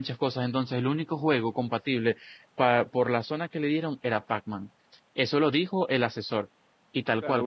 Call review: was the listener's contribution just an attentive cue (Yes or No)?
No